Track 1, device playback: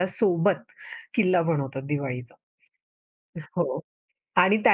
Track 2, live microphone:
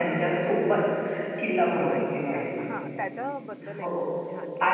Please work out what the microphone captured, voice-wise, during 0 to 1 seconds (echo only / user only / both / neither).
echo only